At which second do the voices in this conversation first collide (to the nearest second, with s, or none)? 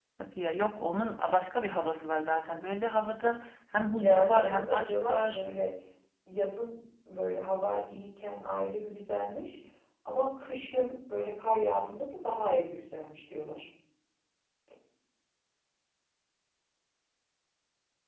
4 s